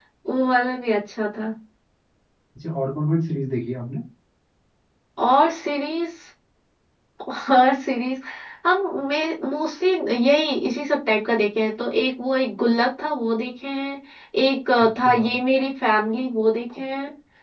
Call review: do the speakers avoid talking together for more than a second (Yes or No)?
Yes